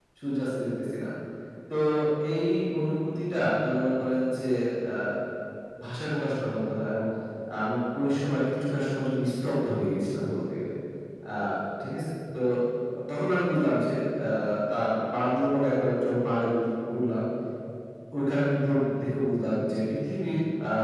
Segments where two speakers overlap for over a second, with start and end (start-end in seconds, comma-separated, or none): none